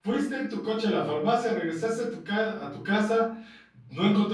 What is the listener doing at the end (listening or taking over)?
listening